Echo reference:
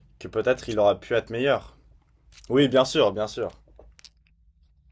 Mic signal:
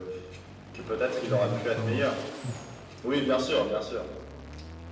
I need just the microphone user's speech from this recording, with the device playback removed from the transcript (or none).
Exactement, c'est fou.